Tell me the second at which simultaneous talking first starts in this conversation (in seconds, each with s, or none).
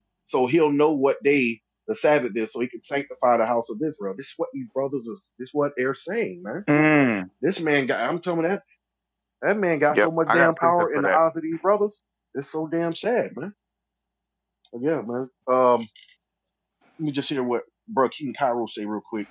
9.9 s